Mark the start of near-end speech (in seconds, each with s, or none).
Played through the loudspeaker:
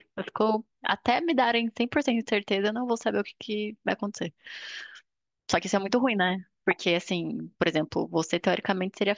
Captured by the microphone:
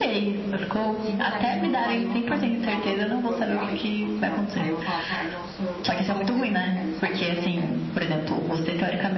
0.8 s